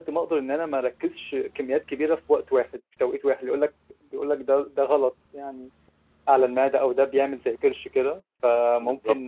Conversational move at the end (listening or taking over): listening